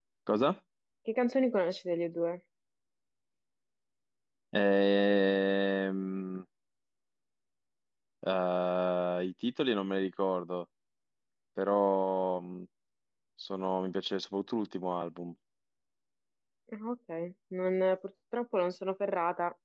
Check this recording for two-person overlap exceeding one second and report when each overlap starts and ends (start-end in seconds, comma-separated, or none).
none